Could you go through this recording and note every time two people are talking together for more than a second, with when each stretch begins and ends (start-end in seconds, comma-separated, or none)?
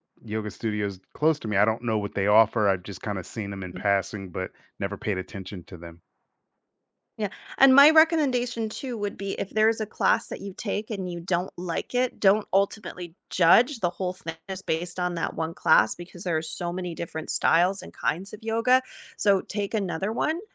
none